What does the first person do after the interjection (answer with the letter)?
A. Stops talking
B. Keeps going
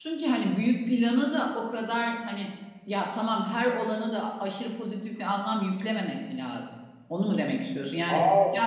B